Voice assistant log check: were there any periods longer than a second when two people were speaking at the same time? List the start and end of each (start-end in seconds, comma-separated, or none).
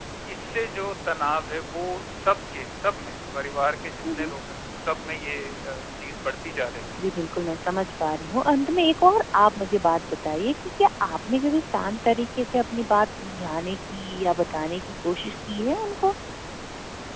none